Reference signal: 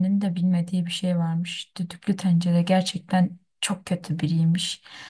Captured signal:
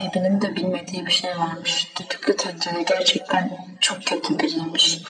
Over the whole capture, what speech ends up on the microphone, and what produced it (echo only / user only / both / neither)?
echo only